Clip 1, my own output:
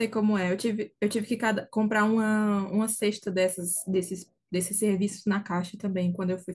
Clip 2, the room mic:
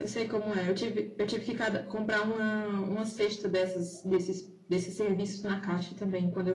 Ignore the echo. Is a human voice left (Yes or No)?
No